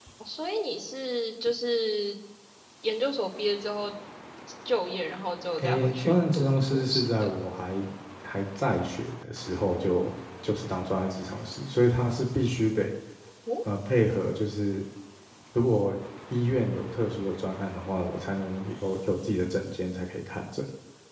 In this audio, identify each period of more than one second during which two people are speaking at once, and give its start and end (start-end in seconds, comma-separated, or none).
5.6-7.3